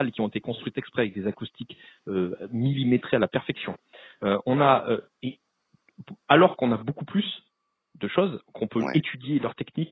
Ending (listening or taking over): listening